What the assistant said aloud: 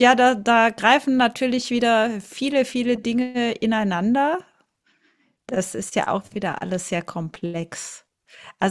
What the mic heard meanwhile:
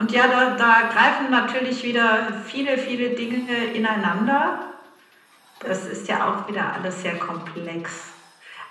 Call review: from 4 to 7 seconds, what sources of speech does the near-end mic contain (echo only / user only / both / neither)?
echo only